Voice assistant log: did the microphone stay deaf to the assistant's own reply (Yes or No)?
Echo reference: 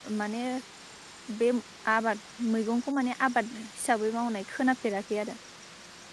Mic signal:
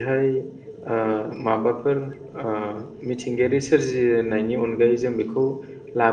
Yes